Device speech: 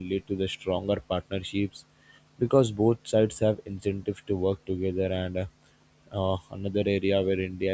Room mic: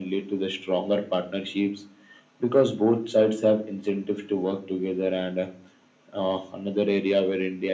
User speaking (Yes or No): No